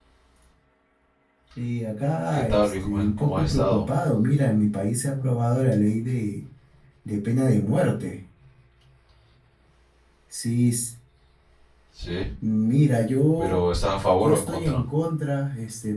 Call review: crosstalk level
present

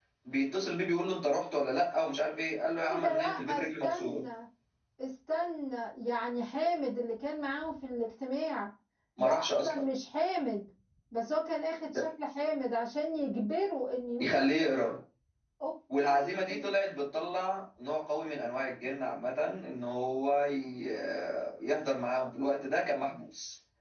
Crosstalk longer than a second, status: present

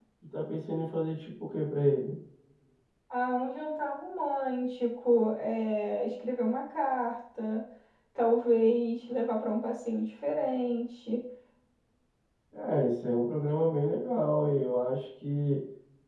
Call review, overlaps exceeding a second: none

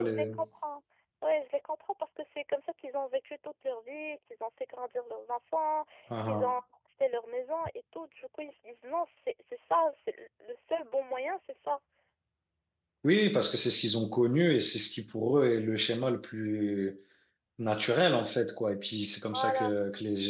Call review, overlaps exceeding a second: none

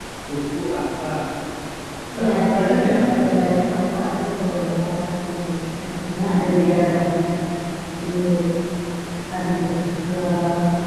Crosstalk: present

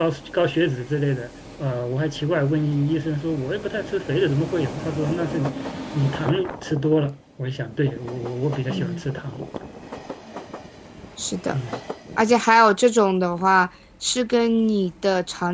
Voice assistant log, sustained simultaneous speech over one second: none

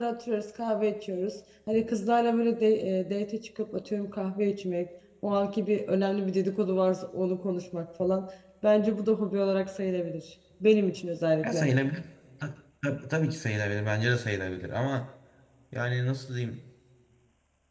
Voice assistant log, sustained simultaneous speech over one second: none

